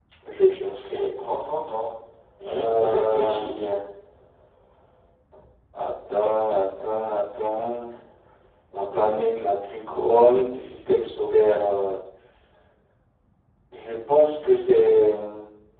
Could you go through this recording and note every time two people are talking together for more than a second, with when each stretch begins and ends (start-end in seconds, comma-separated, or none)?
2.5-3.7